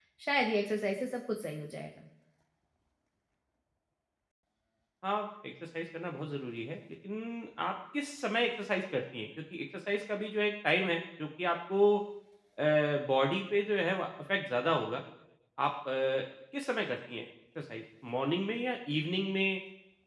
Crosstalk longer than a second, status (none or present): none